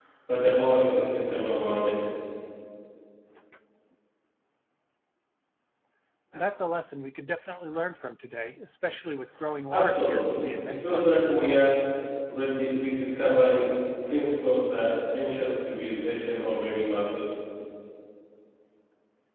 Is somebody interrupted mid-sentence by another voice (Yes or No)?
Yes